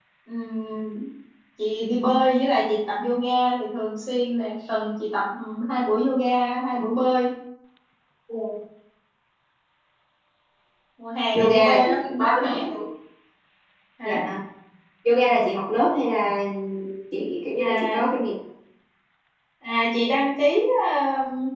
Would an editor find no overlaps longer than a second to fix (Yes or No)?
No